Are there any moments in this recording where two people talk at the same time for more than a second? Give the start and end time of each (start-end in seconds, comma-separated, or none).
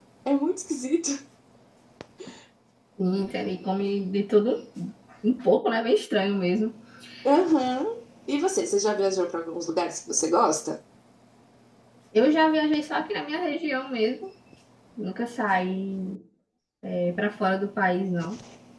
none